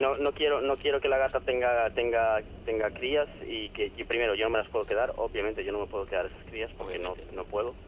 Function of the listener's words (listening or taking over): listening